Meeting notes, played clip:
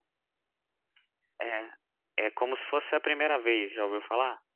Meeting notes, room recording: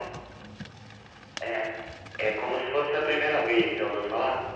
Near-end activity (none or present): none